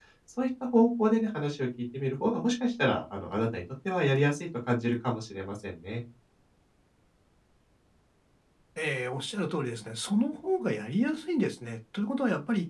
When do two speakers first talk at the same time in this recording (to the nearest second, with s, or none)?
none